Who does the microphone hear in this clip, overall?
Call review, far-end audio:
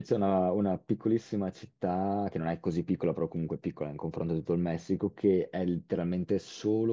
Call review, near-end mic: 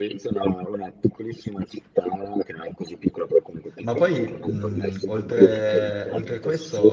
both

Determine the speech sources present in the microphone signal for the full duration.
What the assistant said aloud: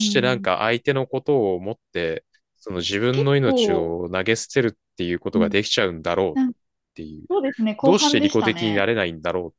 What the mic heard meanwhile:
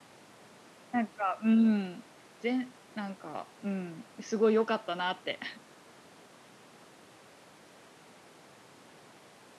user only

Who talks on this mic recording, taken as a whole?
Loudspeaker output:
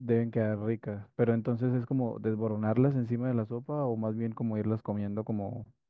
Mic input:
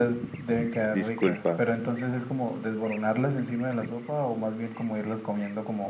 both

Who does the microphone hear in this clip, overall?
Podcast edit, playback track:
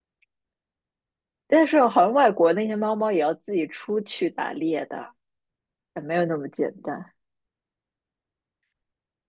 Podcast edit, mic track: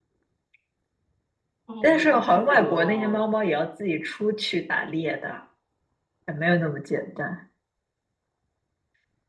both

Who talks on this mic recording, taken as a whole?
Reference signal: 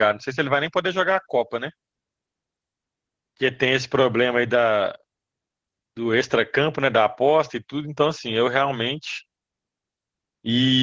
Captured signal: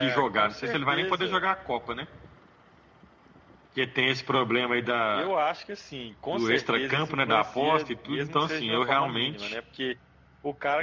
both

